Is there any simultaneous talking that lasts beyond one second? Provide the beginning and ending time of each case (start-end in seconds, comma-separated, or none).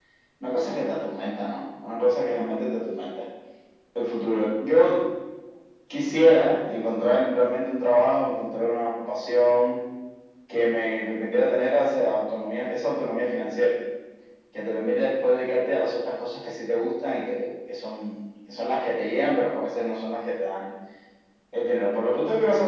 none